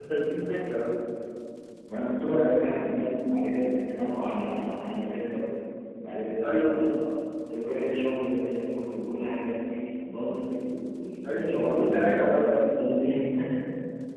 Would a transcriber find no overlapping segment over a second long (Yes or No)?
No